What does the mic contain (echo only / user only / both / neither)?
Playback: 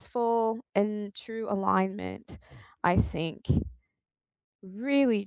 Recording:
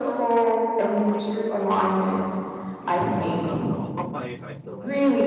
both